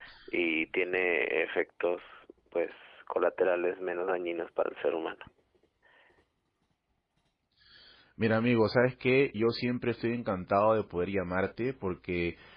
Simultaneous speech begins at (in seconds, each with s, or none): none